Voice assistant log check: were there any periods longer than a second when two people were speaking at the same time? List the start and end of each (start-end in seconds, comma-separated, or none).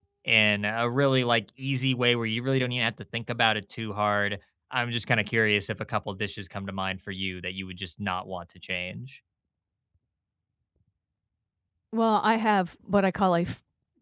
none